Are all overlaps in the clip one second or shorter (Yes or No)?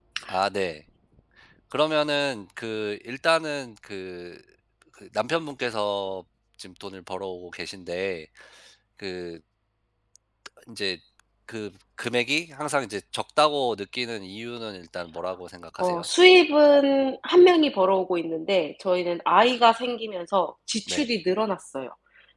Yes